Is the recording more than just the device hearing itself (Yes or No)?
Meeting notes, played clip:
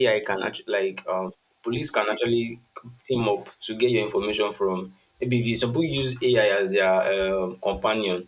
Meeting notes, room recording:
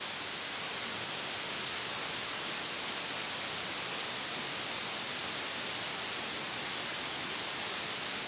No